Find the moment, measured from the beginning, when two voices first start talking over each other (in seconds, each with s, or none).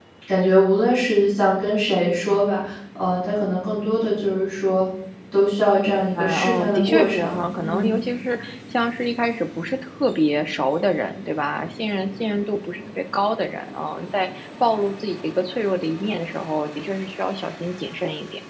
6.2 s